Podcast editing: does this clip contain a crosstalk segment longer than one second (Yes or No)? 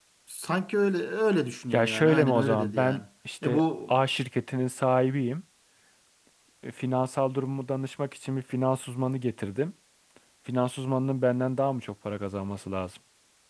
Yes